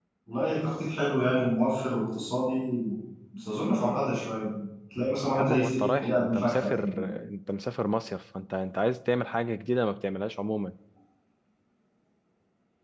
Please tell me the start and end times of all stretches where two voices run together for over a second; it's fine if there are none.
5.3-7.0

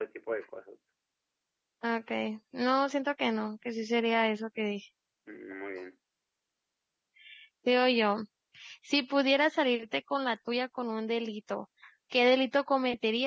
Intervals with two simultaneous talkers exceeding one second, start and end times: none

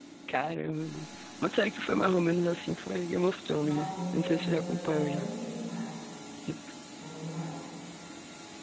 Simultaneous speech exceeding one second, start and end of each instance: 3.7-5.3

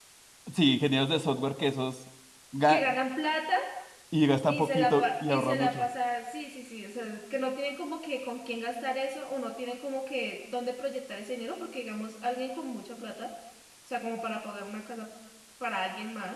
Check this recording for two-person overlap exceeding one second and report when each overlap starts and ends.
4.5-5.8

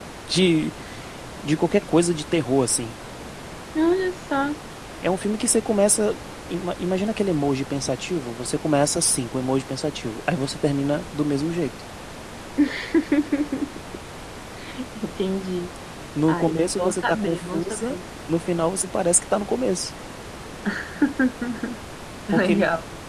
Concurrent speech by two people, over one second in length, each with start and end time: 16.3-18.0

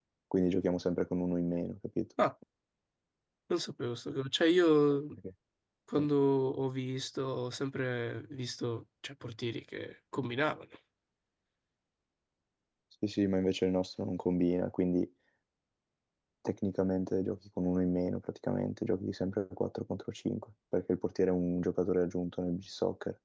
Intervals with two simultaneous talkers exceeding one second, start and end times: none

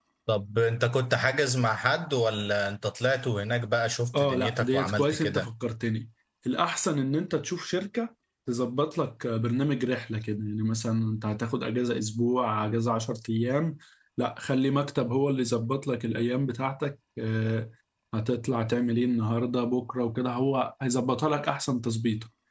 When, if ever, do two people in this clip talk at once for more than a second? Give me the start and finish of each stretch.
4.1-5.4

